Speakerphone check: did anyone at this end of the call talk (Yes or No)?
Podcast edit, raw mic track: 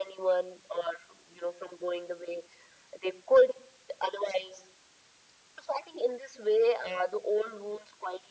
No